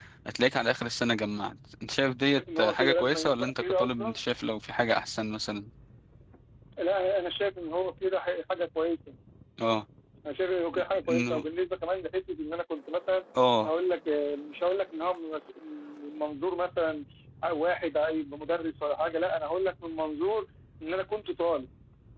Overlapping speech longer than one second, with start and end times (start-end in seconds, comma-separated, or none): 2.4-4.2